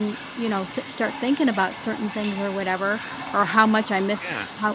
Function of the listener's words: listening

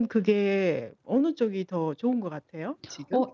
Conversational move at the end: taking over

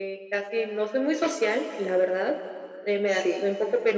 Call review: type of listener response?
listening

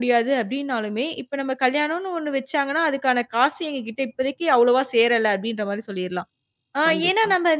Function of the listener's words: listening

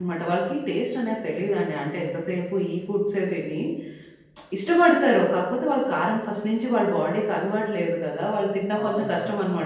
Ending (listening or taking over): listening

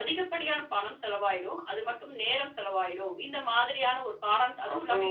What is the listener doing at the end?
taking over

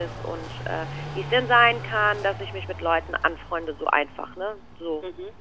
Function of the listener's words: listening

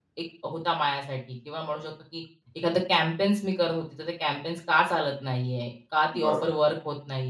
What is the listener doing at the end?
listening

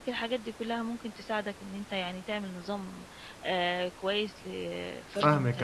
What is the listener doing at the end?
taking over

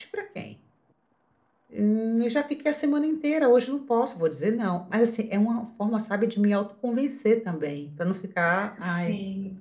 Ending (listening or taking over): listening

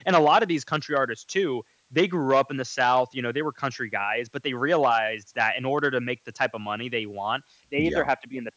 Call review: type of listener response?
listening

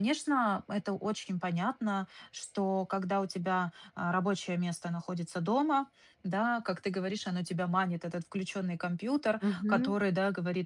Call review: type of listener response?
listening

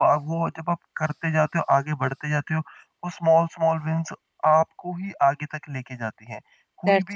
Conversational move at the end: listening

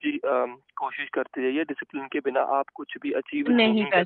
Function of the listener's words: taking over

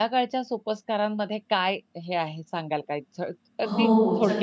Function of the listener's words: taking over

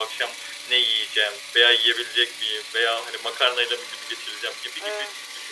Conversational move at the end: listening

